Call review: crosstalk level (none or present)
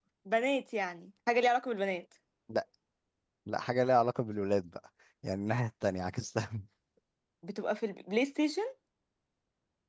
none